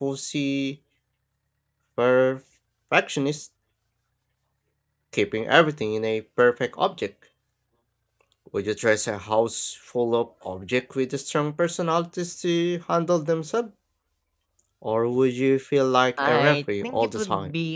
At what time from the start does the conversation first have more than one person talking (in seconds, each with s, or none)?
16.2 s